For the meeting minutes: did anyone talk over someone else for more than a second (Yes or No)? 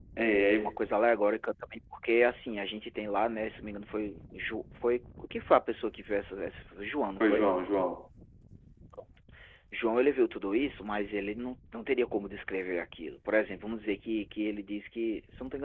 No